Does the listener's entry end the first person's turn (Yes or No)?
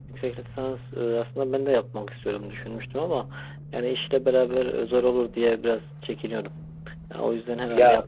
Yes